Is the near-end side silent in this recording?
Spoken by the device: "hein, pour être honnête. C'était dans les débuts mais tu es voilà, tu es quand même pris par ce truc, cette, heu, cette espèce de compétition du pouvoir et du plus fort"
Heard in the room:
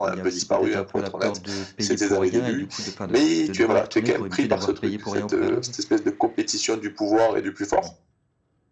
No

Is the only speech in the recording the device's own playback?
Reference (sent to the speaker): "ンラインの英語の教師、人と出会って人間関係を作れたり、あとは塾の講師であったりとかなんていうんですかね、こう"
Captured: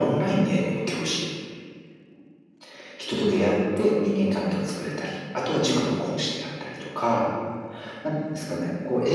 Yes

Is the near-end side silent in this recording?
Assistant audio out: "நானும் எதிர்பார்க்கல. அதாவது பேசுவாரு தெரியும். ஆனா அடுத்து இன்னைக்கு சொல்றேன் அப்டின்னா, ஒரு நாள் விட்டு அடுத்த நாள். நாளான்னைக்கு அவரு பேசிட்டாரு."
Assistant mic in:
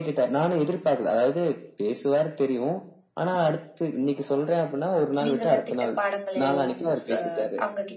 No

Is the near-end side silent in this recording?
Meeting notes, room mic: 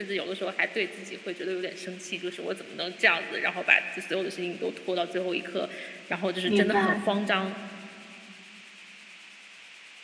No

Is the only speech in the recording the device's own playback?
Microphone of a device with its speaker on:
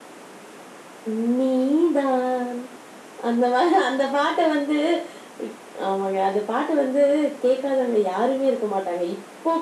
Yes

